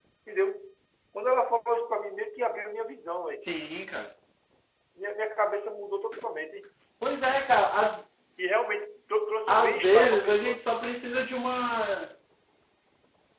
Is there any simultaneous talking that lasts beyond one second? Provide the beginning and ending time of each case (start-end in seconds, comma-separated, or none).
9.5-10.7